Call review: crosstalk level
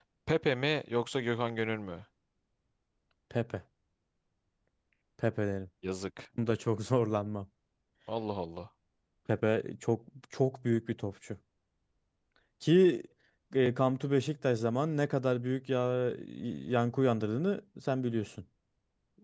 none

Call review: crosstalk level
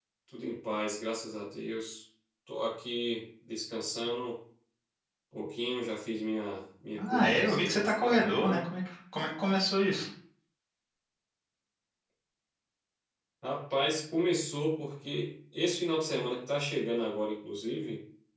present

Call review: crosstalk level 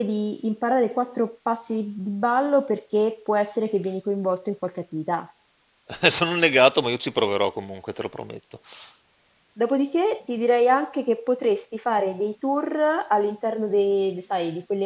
none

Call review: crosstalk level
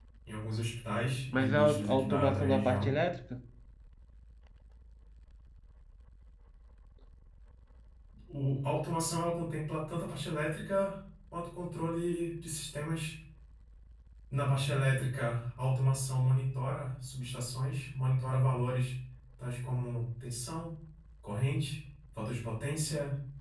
present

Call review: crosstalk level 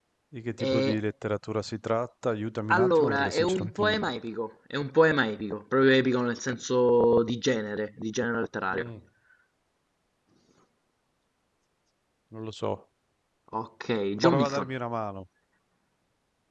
present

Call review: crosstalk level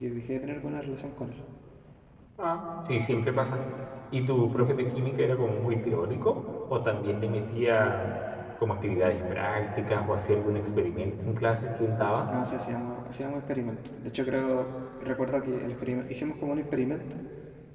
none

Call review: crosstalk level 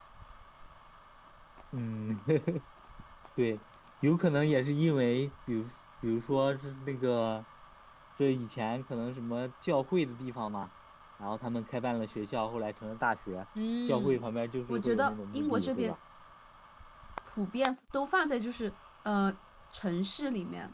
present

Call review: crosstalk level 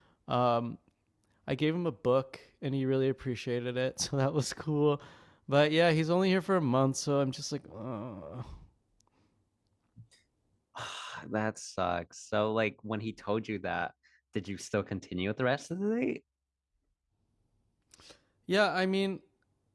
none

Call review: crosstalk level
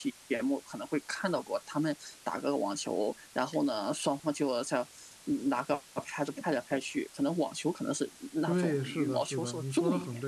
present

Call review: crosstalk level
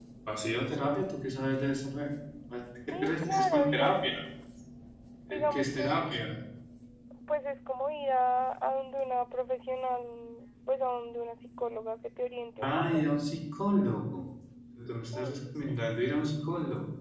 present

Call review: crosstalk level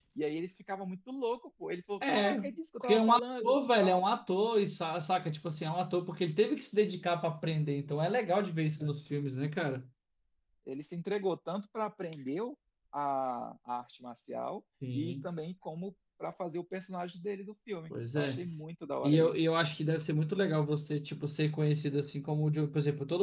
present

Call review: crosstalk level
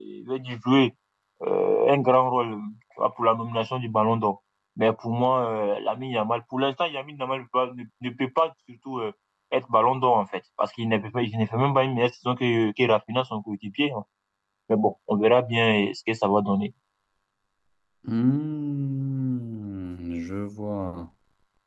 none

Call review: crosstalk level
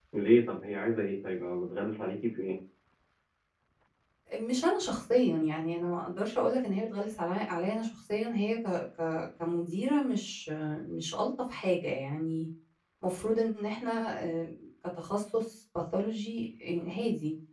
none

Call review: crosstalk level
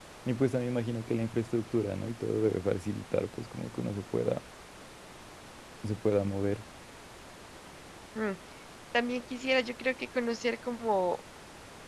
none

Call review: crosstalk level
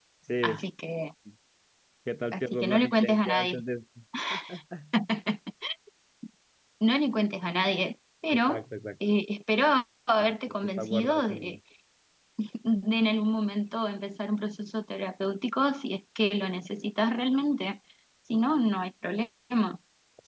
present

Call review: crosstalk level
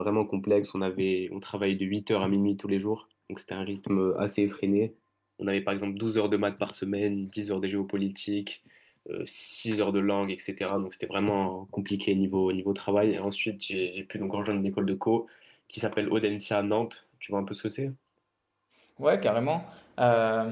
none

